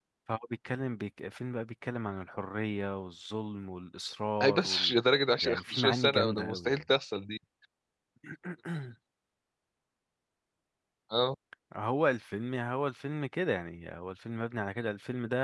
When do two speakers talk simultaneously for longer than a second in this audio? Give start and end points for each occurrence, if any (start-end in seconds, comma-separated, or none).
5.4-6.8